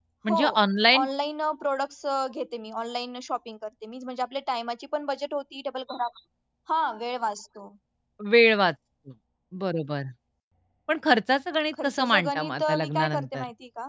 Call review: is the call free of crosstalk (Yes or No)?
No